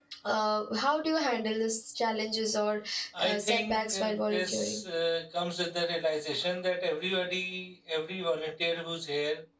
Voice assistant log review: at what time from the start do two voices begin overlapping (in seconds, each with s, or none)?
3.2 s